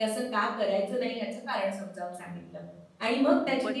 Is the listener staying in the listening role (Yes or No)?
Yes